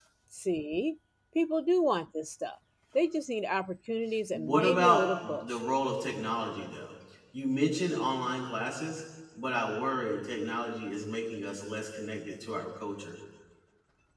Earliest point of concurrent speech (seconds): 4.3 s

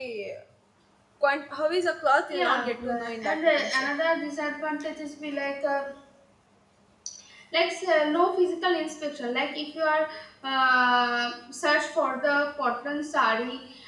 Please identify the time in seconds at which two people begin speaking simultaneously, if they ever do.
2.3 s

